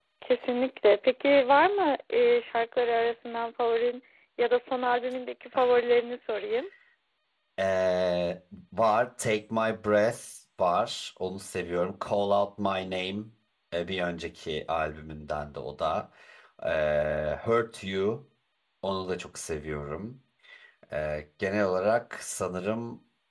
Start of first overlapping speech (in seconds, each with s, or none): none